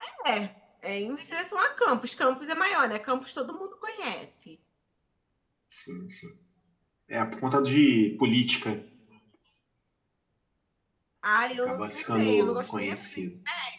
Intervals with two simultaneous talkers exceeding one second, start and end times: 11.6-13.2

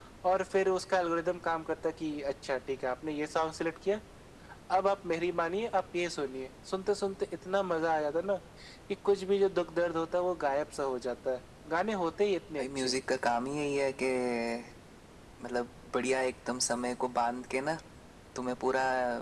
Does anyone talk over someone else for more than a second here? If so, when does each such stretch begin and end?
none

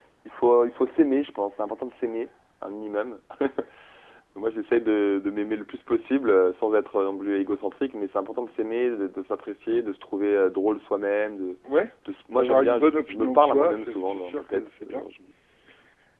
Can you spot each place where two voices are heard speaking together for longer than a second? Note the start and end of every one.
12.3-15.1

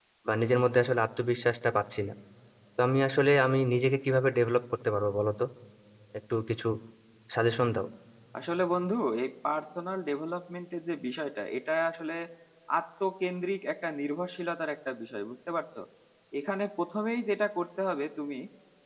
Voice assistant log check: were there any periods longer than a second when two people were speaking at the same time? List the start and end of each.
none

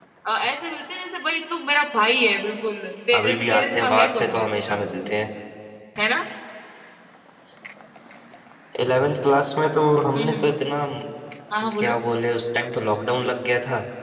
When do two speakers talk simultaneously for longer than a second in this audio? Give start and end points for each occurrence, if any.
3.1-4.8

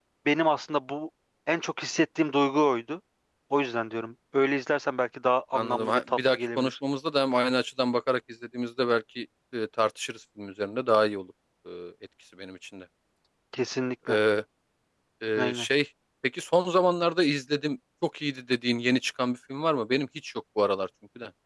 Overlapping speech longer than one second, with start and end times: 5.5-6.8

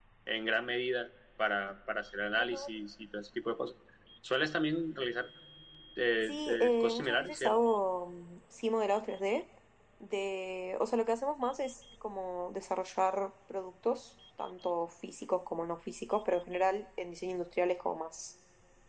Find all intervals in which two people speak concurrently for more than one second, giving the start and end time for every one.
6.2-7.5

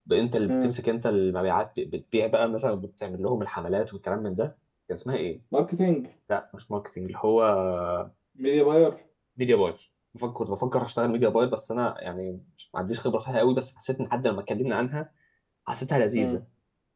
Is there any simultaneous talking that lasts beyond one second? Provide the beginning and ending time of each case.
none

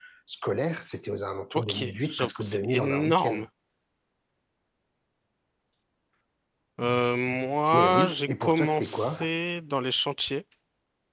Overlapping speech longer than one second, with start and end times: 1.7-3.4, 7.7-9.3

